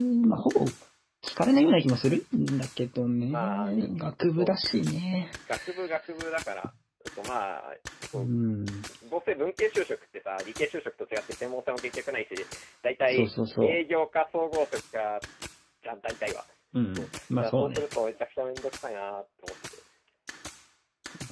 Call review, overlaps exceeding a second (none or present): present